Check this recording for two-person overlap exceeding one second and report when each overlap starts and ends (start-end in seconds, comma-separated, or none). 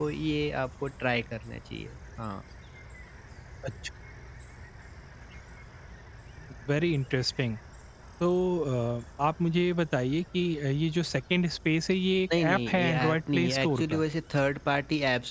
12.4-14.0